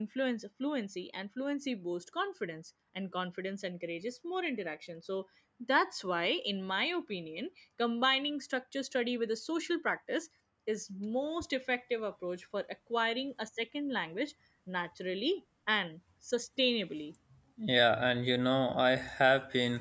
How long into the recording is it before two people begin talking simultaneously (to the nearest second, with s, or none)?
none